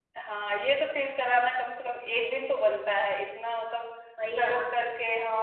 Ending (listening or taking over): listening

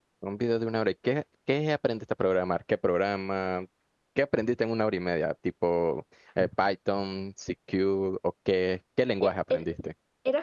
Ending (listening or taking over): taking over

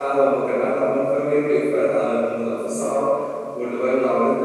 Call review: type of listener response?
taking over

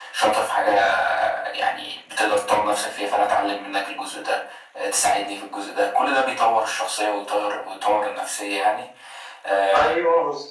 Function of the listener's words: taking over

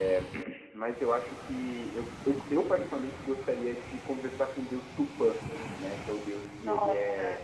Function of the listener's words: listening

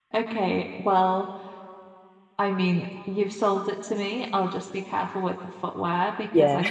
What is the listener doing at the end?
listening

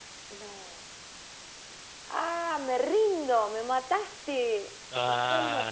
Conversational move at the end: taking over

